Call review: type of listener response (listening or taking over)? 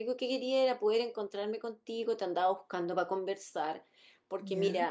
listening